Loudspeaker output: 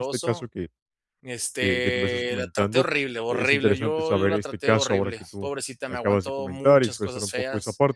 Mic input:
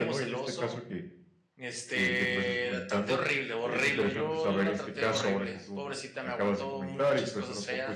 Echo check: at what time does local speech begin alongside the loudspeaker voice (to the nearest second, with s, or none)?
none